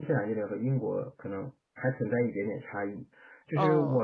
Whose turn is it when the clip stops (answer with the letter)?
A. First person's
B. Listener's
A